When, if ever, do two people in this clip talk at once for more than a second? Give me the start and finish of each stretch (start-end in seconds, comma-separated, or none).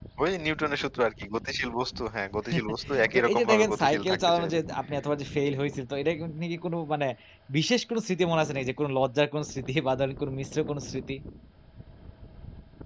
3.1-4.6